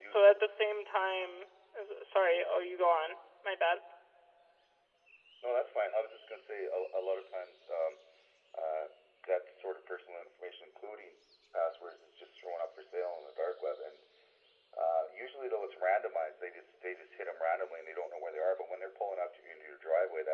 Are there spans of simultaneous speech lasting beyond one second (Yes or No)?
No